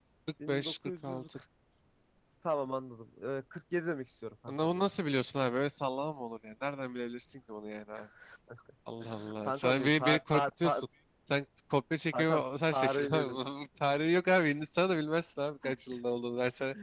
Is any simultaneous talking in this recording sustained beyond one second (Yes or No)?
Yes